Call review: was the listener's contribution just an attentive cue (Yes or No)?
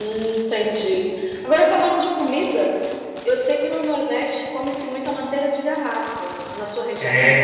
No